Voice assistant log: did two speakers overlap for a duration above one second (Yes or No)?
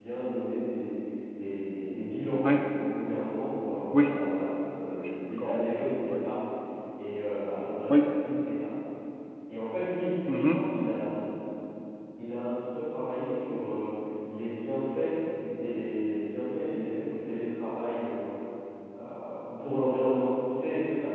No